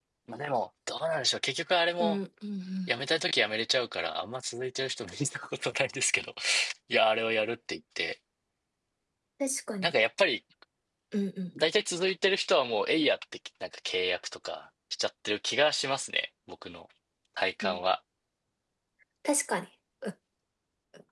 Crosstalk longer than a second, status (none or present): none